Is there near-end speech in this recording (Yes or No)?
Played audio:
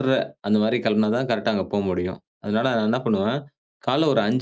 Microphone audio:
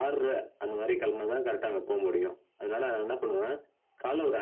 No